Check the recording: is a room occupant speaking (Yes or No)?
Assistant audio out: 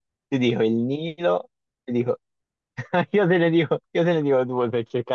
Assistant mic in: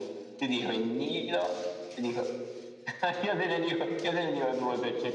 No